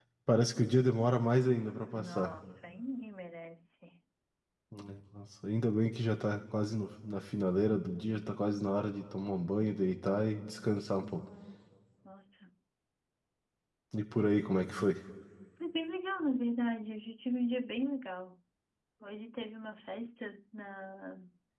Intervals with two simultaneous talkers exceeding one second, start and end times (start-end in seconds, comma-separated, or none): none